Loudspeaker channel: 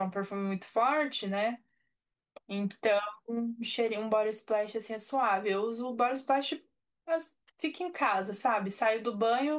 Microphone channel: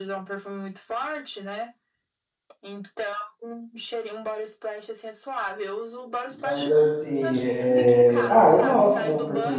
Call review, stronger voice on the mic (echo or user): user